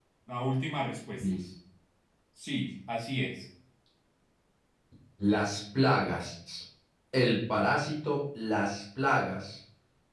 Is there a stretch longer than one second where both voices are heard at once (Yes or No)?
No